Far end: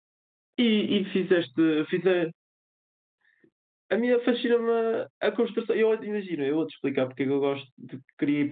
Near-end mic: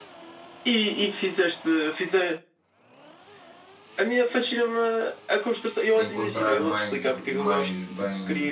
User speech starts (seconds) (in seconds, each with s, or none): 5.9 s